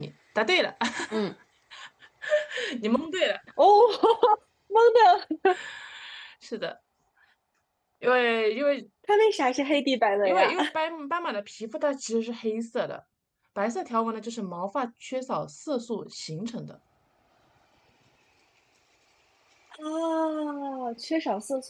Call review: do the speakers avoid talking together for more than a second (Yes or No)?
Yes